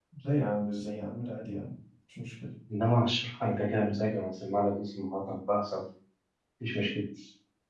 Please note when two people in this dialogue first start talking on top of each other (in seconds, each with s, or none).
none